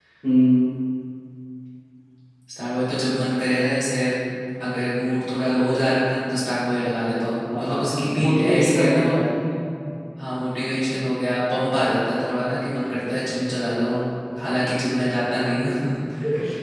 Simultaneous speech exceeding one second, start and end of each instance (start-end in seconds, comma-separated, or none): 7.5-9.1